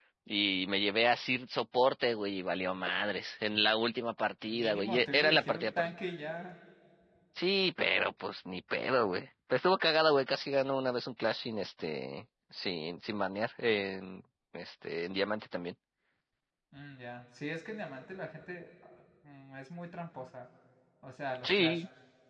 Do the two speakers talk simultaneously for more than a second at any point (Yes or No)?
Yes